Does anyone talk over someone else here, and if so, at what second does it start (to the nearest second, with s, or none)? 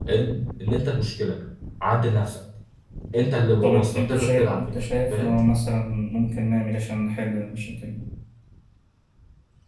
4 s